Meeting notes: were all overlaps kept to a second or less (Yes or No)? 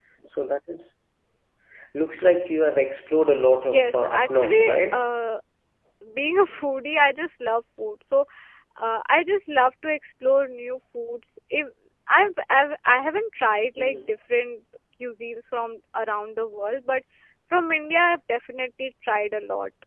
No